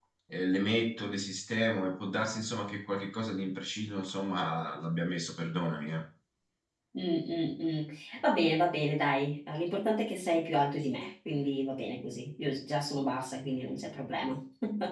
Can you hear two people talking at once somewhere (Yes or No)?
No